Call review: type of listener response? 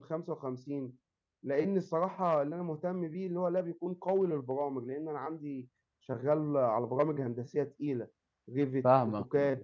taking over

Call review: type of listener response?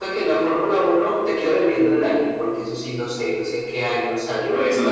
taking over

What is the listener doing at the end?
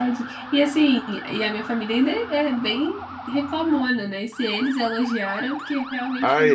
taking over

